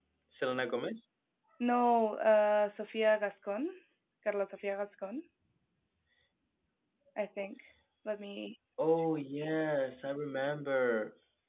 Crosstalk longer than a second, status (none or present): none